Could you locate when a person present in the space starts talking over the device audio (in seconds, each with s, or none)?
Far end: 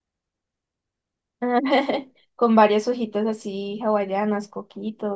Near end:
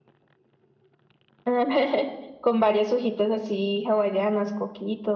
none